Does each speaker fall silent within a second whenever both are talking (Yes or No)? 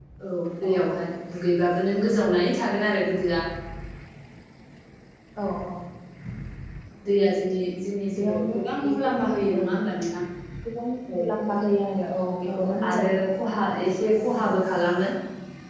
No